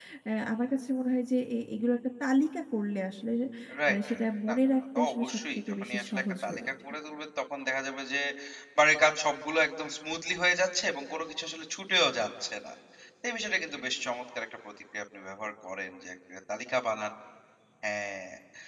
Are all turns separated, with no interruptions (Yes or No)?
No